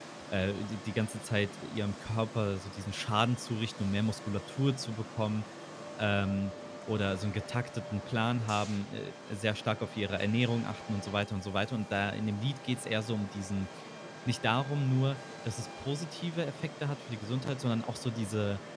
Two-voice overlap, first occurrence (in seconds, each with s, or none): none